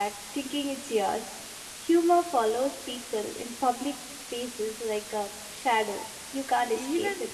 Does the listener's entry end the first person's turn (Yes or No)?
Yes